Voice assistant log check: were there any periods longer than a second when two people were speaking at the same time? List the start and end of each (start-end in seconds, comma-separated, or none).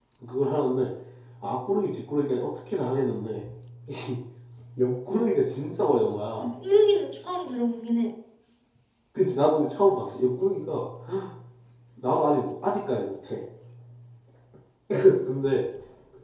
none